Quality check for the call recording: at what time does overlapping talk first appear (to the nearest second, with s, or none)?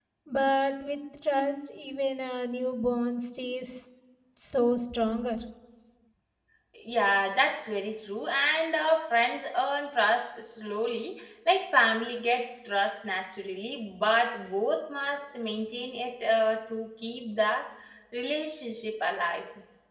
none